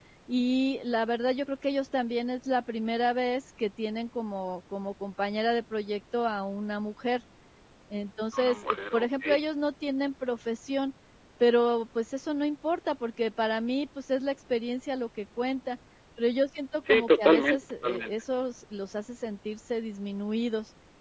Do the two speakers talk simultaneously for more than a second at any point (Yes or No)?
Yes